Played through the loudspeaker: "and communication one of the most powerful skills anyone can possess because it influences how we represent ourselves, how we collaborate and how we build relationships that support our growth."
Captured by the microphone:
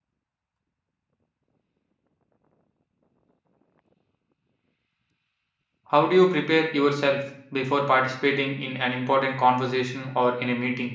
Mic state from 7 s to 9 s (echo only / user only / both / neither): user only